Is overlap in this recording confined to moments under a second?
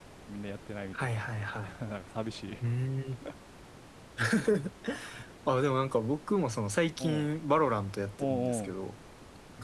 Yes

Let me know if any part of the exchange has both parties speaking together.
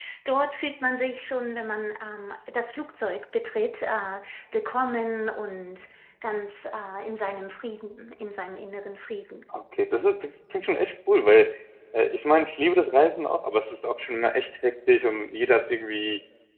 No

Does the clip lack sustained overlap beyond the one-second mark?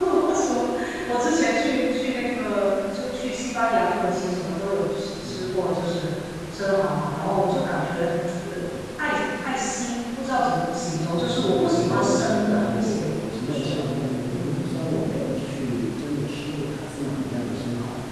No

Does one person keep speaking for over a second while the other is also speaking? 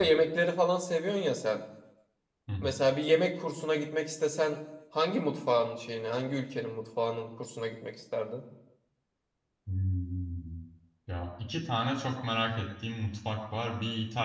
No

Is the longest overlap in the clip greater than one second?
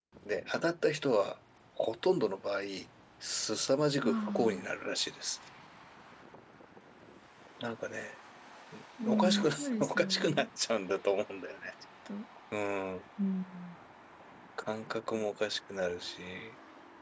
Yes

